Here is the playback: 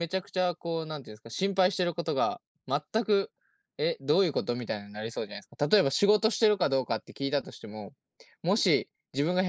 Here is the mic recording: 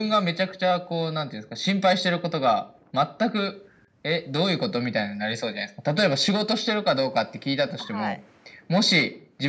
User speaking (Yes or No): Yes